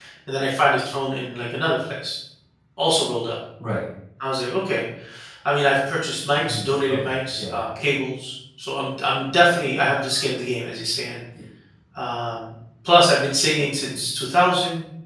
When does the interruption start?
6 s

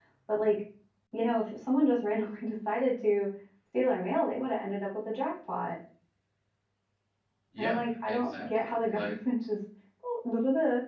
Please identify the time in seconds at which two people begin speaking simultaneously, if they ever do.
8 s

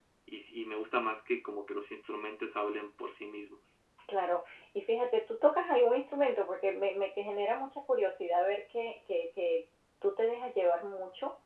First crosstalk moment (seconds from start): none

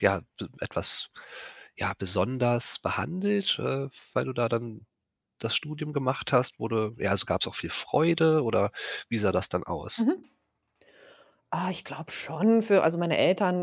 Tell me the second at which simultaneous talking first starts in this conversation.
none

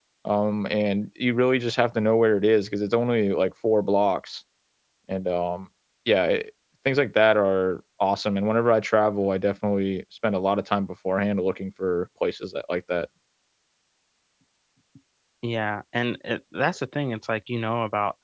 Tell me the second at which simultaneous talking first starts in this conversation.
none

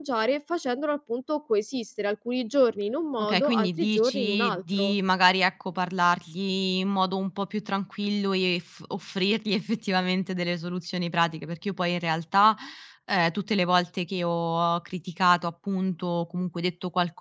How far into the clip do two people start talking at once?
3 s

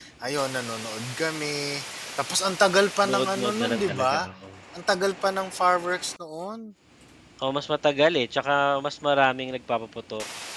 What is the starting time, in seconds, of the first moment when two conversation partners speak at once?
3 s

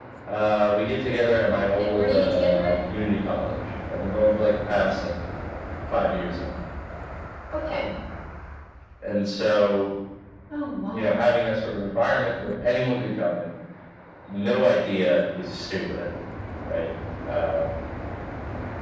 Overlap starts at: 2 s

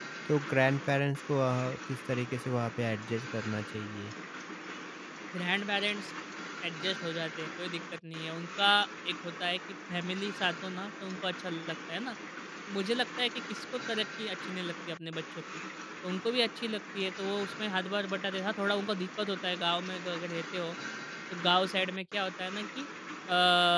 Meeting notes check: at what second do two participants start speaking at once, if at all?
none

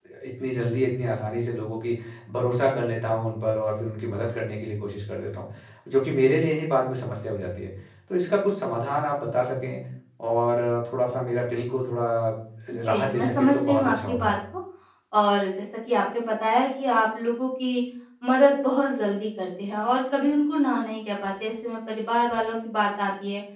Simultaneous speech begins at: 13 s

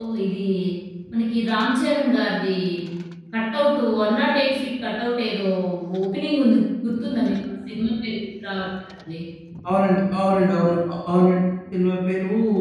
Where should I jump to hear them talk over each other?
none

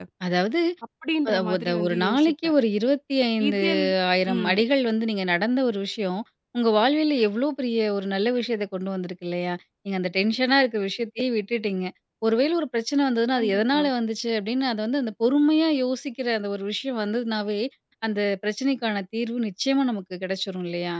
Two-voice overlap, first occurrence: 1 s

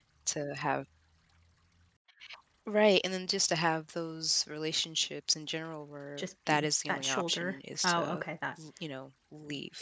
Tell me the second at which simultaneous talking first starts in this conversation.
6 s

